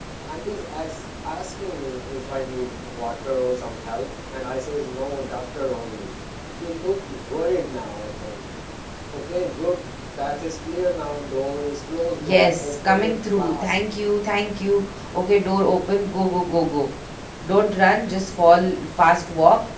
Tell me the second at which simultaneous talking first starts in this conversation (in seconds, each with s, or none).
12.2 s